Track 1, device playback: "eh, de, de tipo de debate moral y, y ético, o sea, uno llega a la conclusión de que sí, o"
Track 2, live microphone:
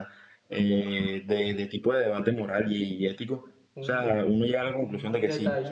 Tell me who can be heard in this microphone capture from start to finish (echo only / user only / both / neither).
both